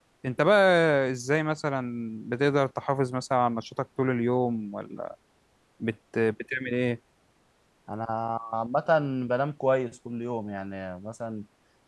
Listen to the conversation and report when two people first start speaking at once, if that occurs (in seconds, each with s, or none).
none